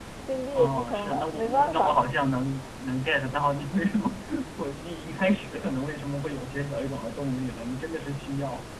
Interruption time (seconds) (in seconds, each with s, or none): 0.5 s